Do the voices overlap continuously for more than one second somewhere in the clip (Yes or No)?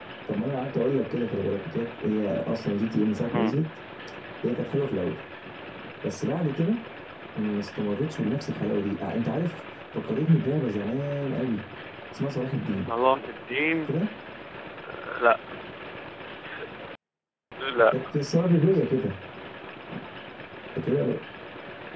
No